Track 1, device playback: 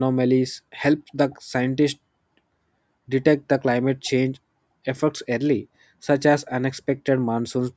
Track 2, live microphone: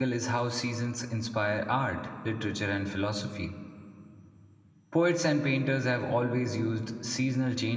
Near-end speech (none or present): present